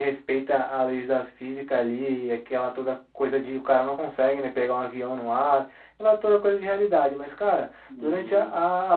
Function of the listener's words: listening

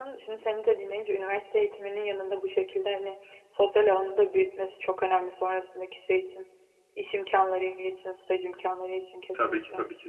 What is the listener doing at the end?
taking over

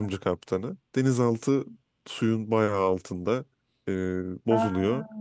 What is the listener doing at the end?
listening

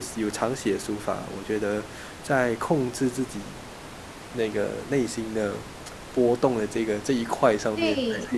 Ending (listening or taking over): taking over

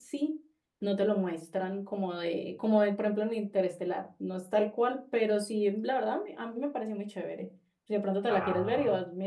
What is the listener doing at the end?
listening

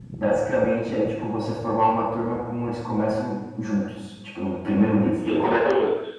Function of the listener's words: taking over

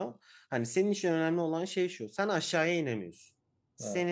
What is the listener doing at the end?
listening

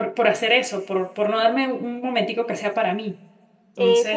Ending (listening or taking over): taking over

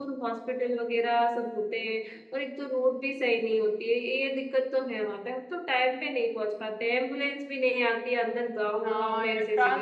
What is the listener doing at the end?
taking over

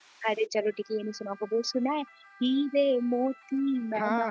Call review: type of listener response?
taking over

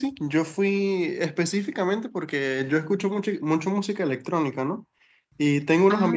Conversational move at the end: listening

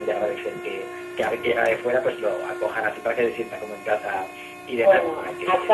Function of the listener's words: taking over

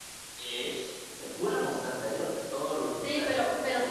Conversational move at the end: taking over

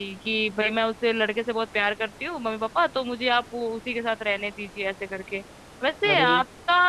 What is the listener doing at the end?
listening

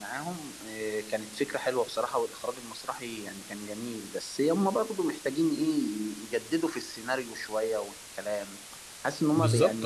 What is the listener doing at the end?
taking over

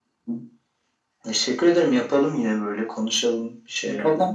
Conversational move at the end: taking over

